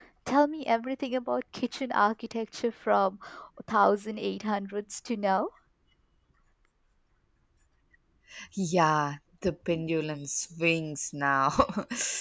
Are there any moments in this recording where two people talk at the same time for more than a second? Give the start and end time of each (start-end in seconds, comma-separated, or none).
none